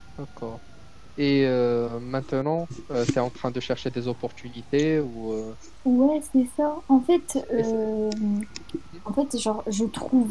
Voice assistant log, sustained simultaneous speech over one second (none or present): none